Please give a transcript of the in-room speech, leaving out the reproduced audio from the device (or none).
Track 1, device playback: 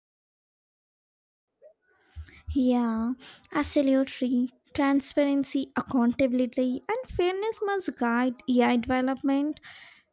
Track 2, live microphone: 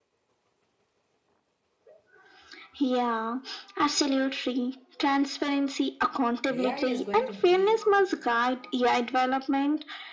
AI is going to be